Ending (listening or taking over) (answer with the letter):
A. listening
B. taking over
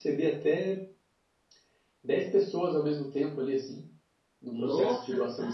B